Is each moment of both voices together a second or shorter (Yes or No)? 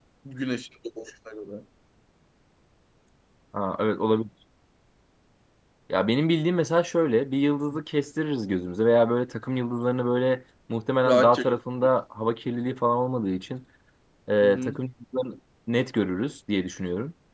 Yes